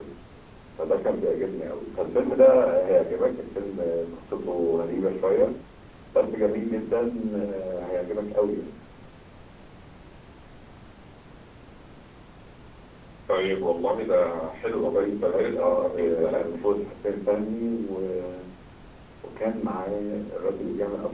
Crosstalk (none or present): present